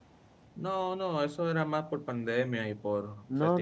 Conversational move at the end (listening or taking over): taking over